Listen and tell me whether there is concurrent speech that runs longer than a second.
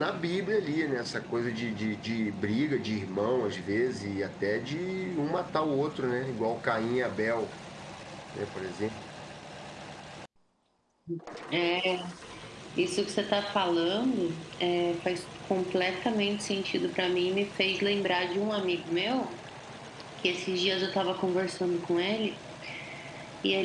No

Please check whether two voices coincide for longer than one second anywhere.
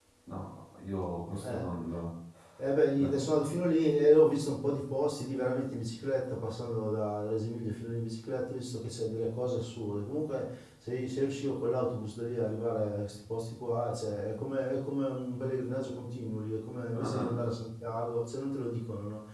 No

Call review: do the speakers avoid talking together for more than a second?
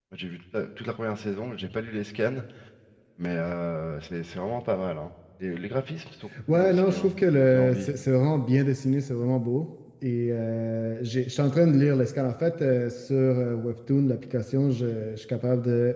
No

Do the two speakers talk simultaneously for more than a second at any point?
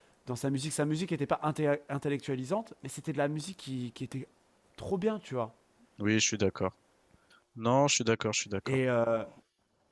No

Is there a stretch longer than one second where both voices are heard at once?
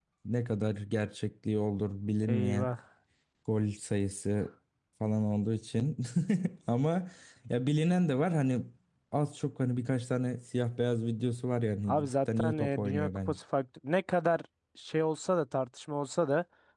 Yes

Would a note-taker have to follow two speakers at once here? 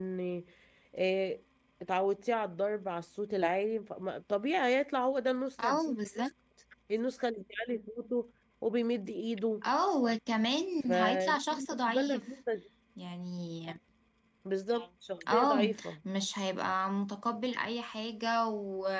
Yes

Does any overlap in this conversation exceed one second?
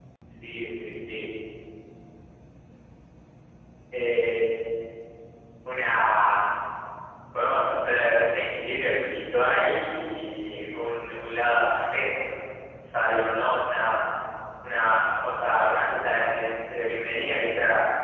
No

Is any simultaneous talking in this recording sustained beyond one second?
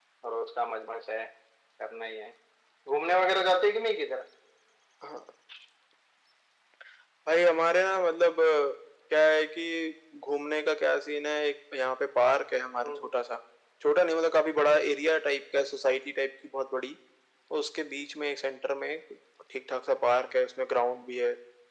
No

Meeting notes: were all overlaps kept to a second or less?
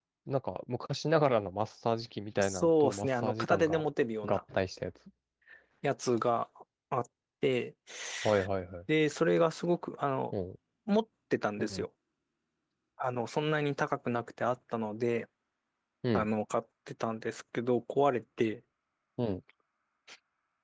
No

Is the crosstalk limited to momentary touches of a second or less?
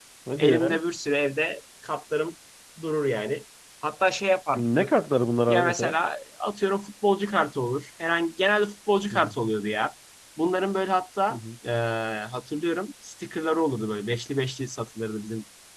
Yes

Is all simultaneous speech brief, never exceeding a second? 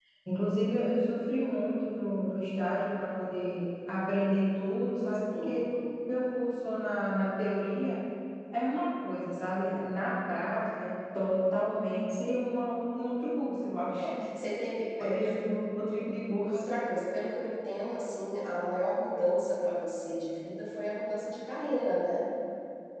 Yes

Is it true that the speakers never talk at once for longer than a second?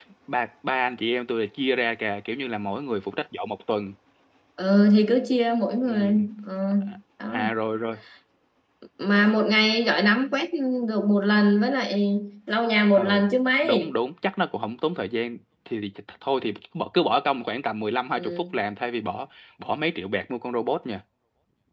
Yes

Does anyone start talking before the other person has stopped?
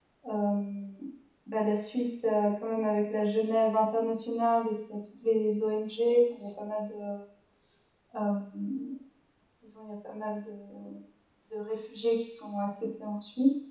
No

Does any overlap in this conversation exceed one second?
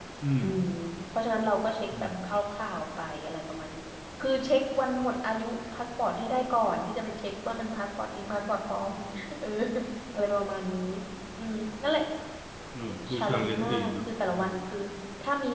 Yes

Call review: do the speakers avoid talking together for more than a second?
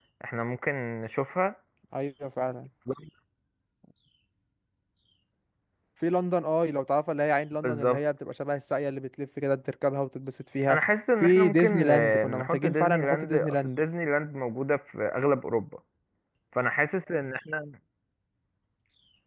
No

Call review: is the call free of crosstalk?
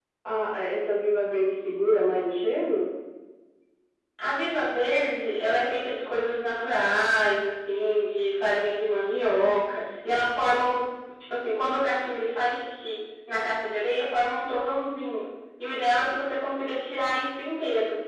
Yes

